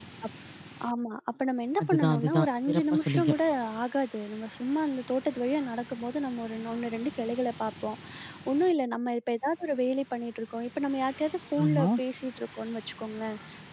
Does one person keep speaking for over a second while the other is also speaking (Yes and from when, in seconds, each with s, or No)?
Yes, from 1.8 s